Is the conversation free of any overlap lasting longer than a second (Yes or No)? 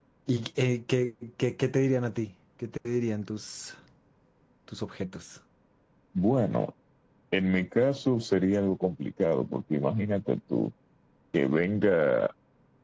Yes